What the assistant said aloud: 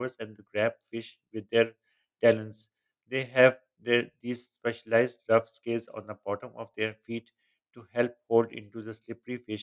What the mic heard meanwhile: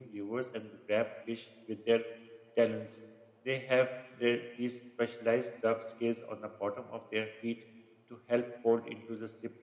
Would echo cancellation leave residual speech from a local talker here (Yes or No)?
No